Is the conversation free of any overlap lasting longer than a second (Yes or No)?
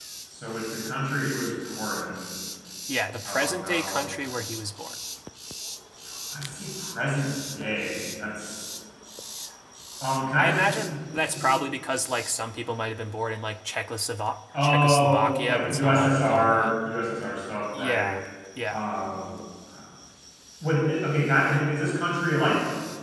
No